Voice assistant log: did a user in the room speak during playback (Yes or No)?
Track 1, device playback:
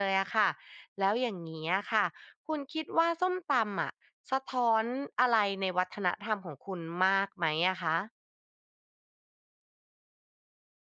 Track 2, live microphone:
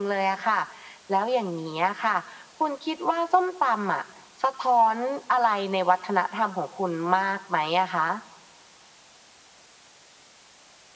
No